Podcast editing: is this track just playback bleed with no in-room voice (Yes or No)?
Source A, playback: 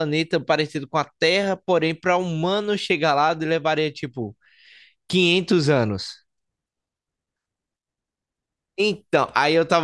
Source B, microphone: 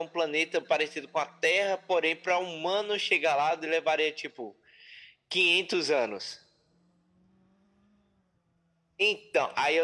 Yes